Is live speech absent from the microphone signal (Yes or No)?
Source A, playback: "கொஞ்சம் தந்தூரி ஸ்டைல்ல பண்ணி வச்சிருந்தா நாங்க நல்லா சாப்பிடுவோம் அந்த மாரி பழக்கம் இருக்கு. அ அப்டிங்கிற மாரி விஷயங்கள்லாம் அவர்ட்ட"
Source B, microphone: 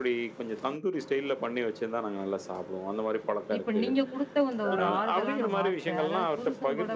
No